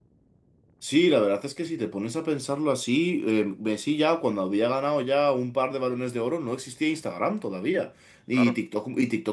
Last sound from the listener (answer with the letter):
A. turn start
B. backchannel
B